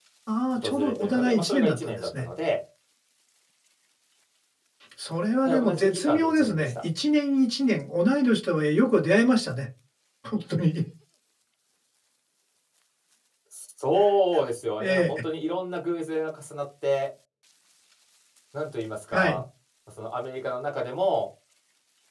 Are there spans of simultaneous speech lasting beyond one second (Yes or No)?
Yes